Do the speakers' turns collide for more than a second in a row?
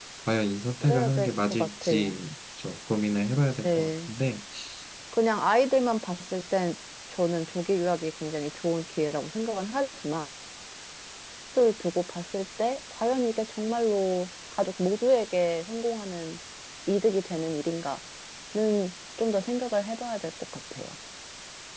Yes, from 0.8 s

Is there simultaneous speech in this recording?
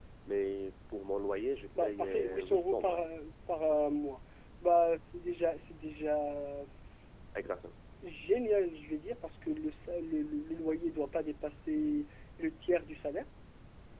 Yes, from 1.8 s

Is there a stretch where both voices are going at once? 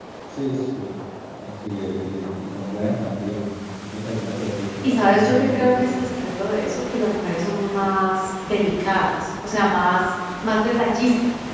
Yes, from 4.8 s

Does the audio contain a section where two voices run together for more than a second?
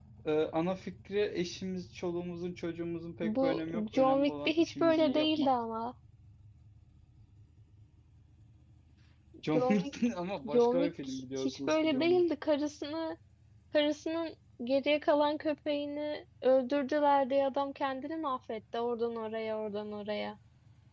Yes, from 3.2 s

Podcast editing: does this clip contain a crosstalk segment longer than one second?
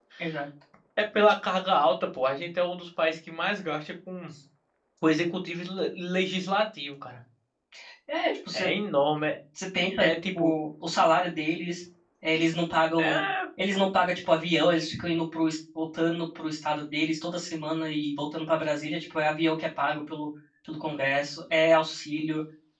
No

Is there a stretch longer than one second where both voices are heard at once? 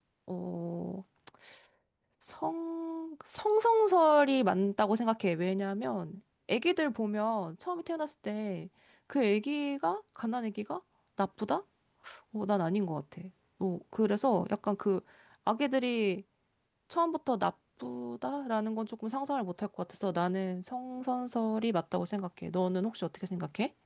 No

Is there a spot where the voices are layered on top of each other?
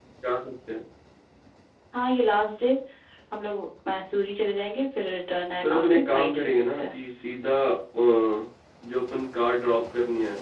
Yes, from 5.6 s

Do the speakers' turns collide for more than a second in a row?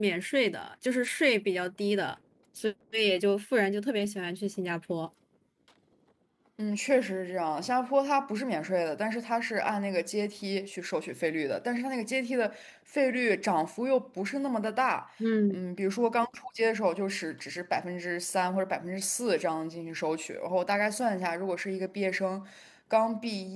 No

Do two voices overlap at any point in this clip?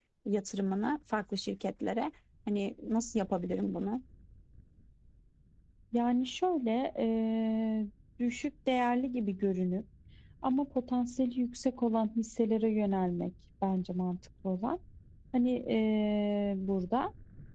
No

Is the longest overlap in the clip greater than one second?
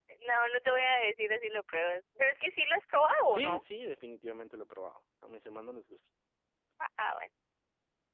No

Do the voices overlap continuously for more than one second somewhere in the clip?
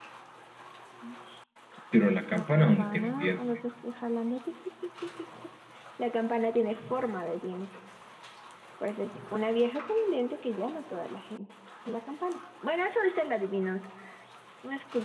Yes, from 2.3 s

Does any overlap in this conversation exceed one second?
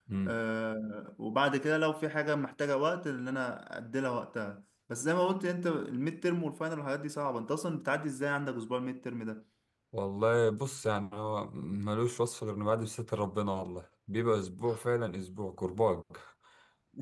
No

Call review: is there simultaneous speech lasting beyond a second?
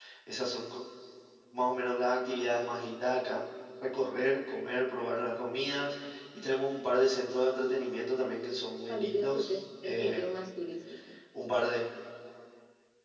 Yes, from 8.9 s

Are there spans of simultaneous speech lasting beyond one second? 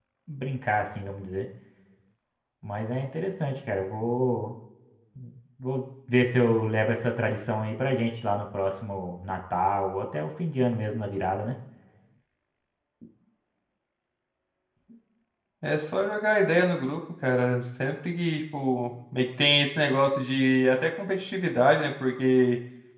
No

